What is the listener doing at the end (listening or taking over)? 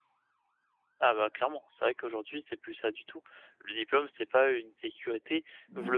listening